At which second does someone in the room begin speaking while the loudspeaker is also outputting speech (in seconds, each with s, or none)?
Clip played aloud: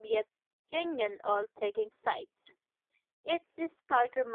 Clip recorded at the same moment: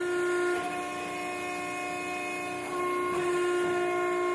none